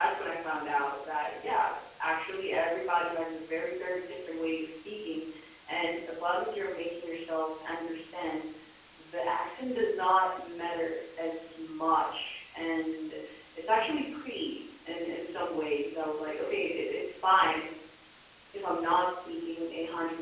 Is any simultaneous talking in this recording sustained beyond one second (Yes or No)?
No